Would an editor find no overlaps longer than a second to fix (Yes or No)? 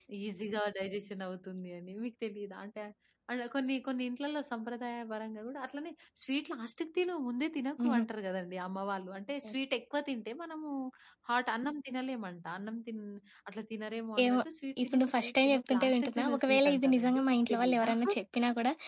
No